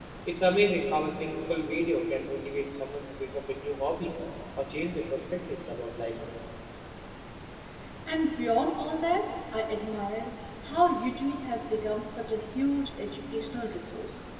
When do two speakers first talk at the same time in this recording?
none

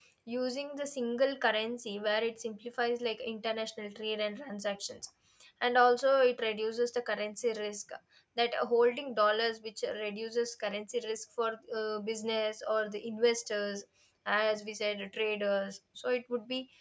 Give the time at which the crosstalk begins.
none

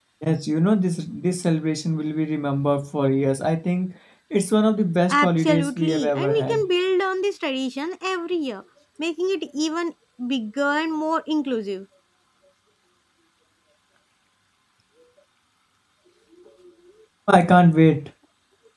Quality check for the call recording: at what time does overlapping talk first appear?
5 s

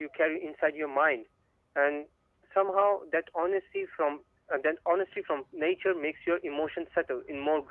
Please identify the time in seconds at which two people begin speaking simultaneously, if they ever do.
none

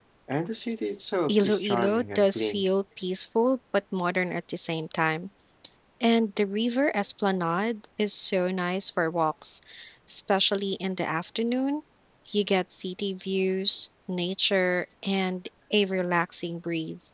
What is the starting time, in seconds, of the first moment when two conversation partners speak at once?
1 s

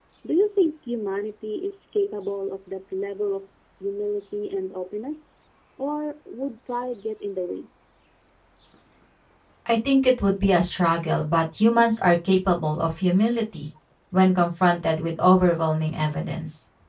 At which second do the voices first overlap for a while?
none

